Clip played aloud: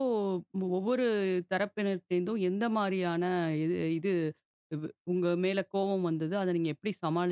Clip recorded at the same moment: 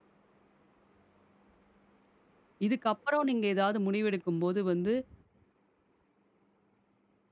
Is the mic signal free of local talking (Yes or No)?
No